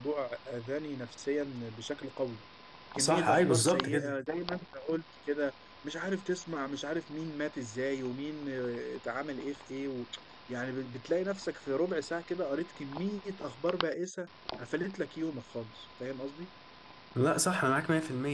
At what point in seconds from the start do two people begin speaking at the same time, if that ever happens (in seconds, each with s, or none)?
3.0 s